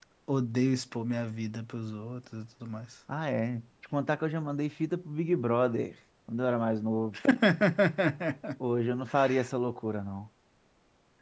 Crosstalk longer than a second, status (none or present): none